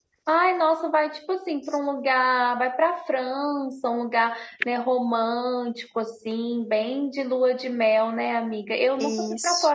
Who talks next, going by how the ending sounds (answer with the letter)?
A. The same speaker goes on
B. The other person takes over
A